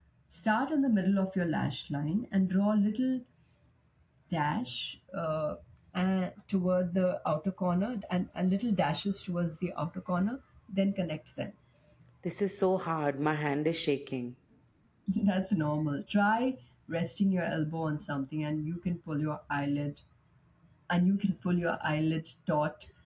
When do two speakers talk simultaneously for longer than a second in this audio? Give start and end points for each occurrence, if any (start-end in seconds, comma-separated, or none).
none